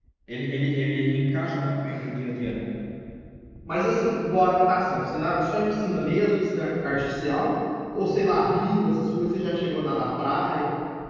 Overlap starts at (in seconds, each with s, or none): none